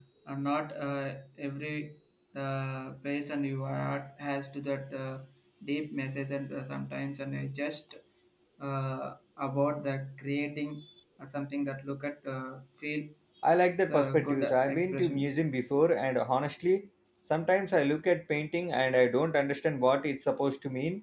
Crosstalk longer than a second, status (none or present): present